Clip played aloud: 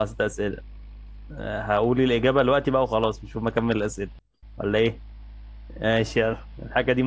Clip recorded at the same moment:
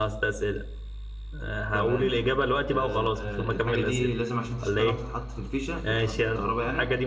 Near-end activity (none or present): present